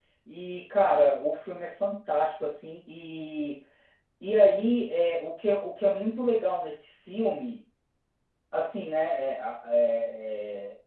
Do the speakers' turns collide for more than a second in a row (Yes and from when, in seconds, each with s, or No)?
No